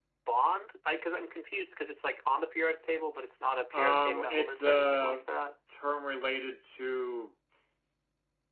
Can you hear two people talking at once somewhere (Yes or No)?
Yes